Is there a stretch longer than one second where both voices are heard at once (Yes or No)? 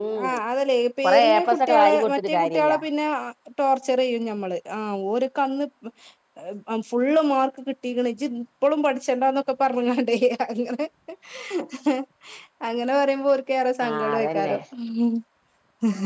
Yes